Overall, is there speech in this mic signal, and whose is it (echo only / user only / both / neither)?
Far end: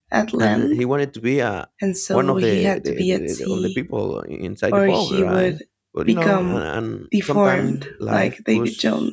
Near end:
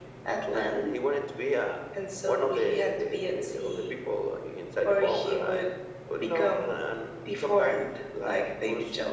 echo only